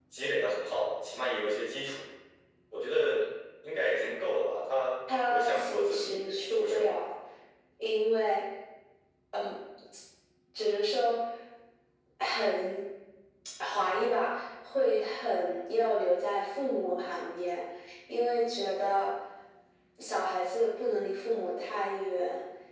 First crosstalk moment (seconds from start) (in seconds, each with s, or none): 5.1 s